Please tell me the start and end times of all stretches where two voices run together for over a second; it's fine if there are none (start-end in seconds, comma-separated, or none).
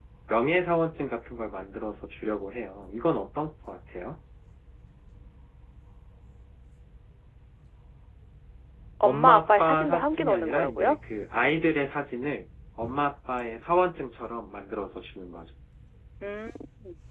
9.0-11.0